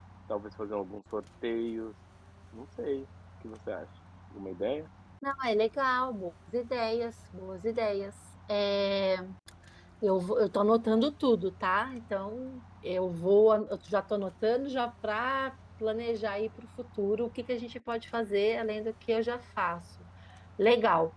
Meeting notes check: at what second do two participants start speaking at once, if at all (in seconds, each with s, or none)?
none